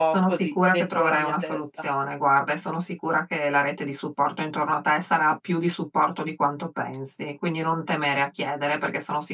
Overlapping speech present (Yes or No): Yes